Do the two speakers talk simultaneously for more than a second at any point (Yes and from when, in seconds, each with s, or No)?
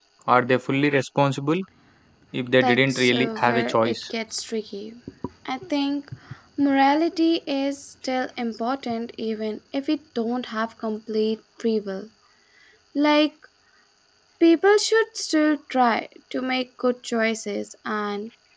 Yes, from 2.6 s